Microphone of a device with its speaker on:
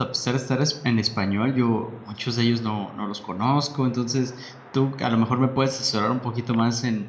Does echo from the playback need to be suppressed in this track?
No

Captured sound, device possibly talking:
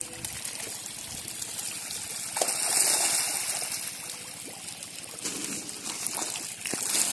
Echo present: No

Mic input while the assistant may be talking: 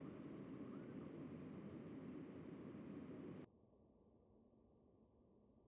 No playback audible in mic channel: Yes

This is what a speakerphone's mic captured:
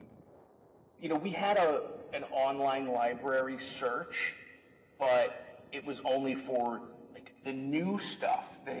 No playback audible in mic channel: Yes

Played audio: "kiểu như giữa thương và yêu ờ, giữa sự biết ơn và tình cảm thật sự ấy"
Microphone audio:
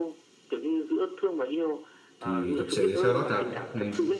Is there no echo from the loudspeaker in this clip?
No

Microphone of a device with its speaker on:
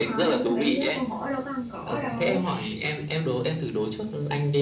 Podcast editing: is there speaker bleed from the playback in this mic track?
Yes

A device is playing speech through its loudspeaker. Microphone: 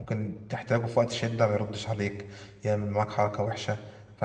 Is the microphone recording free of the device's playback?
Yes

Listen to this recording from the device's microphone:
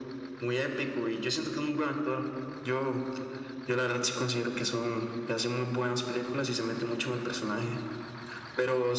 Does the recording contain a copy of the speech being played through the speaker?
Yes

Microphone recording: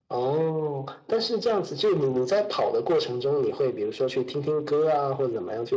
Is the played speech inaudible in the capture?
No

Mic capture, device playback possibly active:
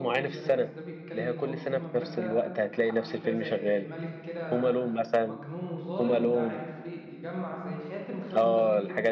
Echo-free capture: No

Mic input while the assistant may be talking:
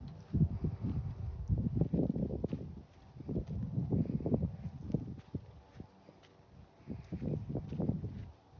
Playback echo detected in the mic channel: No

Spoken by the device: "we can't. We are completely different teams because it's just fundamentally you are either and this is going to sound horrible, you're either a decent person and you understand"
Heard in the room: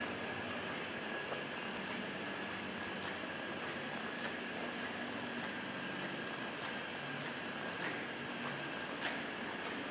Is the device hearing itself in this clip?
No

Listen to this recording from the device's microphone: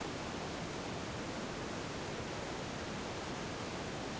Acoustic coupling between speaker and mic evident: No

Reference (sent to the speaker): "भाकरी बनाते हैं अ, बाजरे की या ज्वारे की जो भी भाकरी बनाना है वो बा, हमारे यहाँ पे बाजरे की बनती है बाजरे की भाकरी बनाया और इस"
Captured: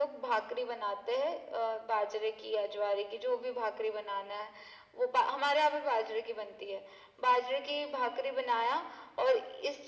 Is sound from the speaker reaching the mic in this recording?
Yes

